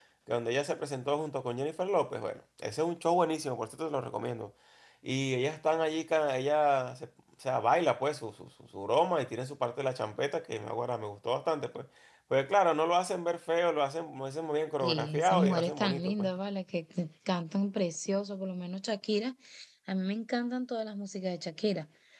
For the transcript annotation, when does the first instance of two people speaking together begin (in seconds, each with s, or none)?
14.8 s